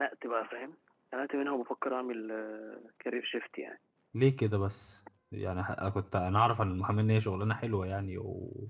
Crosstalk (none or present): none